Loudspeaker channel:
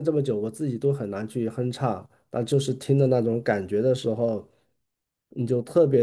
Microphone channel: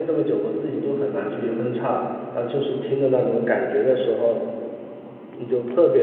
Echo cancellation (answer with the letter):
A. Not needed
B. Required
B